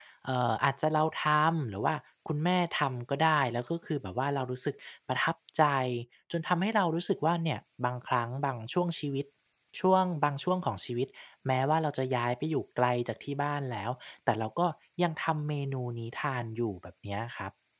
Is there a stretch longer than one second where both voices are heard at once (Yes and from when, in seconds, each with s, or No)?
No